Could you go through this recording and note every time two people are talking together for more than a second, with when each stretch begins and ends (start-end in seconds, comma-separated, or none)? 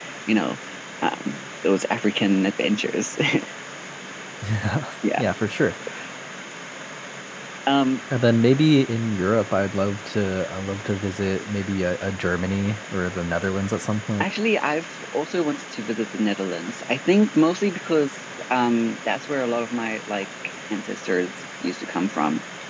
none